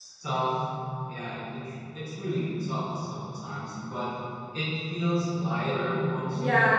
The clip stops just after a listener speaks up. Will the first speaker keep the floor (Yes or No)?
No